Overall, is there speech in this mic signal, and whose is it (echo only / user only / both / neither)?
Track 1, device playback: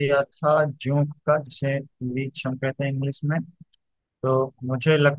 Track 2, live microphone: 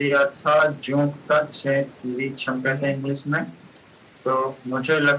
both